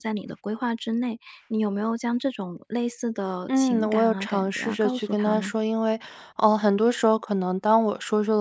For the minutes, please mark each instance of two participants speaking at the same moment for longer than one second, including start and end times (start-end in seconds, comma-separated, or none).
3.5-5.5